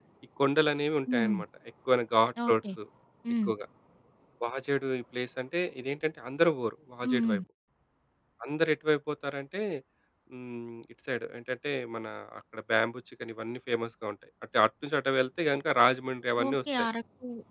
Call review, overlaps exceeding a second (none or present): none